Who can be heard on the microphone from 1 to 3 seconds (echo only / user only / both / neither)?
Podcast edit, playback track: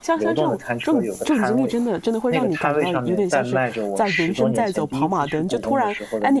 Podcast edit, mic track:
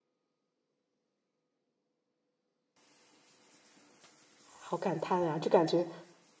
neither